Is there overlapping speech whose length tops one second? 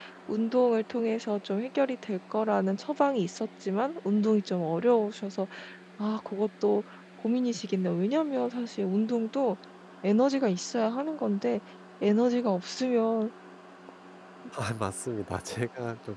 No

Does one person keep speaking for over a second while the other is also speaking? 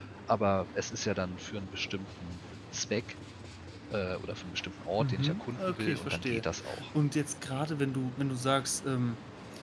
Yes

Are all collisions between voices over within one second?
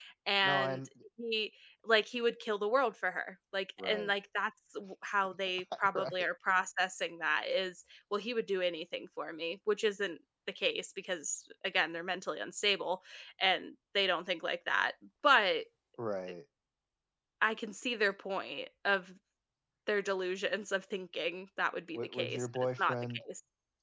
No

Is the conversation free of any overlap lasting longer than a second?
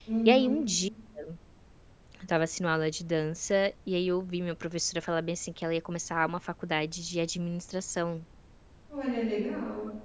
Yes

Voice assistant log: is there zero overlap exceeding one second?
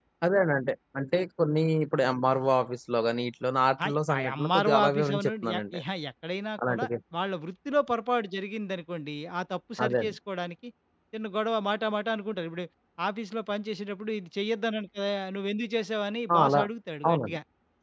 No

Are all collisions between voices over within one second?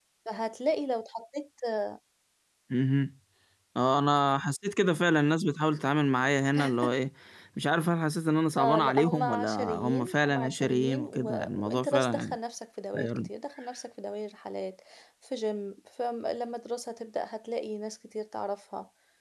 No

